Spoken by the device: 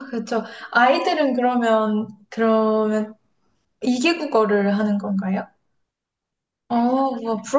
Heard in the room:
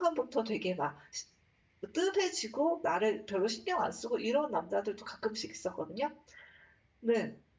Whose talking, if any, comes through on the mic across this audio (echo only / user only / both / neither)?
user only